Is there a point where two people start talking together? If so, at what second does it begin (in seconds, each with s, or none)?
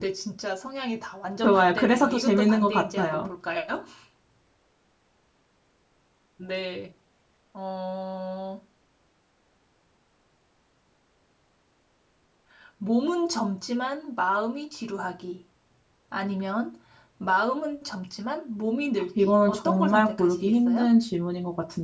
1.4 s